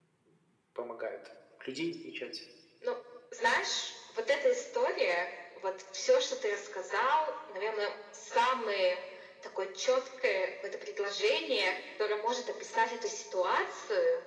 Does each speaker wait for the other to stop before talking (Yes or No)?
Yes